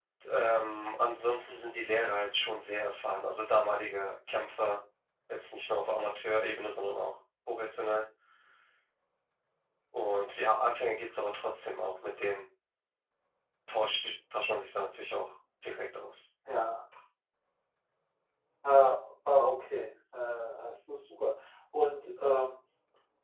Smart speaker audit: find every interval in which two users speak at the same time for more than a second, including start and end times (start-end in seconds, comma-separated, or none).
none